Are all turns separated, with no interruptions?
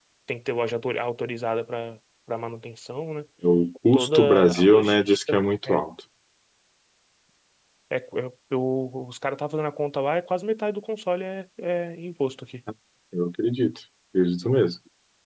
No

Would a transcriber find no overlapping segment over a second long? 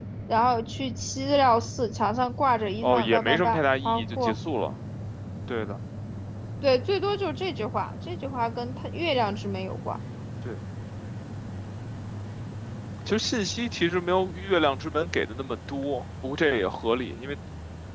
No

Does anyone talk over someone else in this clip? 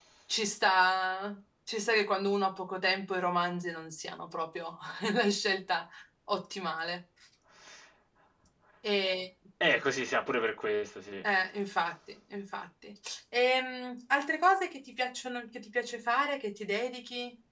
No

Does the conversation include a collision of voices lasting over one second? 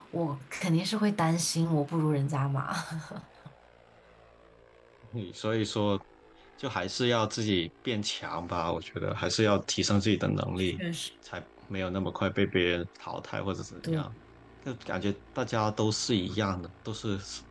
No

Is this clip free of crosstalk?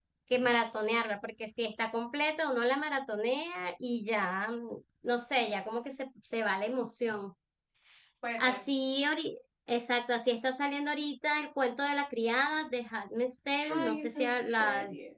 No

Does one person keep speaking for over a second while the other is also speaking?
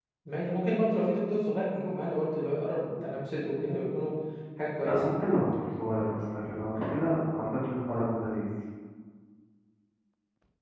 No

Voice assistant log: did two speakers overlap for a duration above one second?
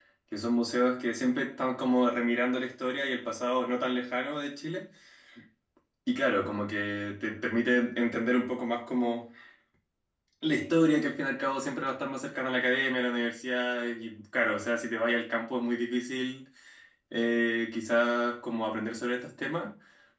No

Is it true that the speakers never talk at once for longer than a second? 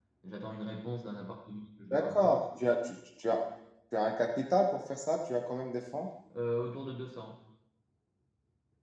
Yes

